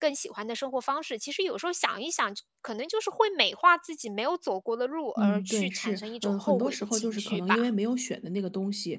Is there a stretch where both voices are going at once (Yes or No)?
Yes